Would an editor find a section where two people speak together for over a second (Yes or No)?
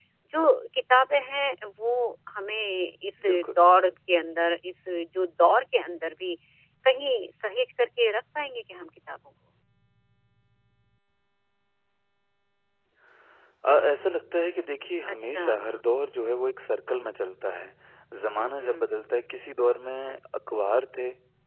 No